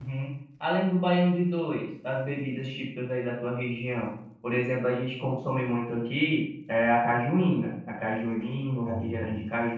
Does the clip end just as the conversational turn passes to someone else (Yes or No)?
No